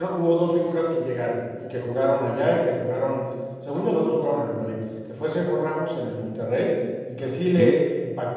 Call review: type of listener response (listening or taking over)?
listening